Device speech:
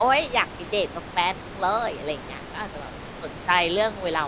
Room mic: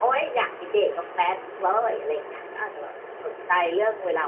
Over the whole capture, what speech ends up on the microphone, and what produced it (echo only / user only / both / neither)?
echo only